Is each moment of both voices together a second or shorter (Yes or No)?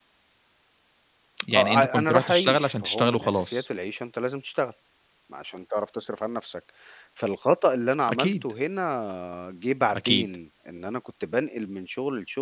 No